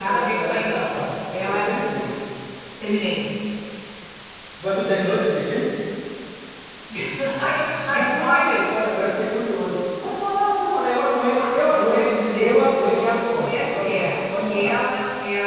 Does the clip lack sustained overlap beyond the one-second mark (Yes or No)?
No